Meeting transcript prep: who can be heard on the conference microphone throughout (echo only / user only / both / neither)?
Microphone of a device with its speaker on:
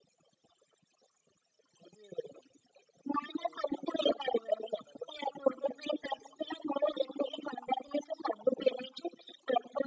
echo only